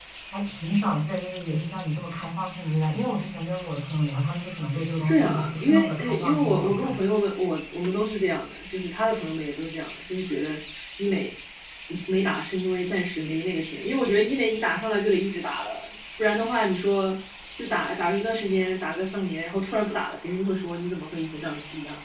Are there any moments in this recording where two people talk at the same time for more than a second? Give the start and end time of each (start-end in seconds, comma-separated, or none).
5.0-6.9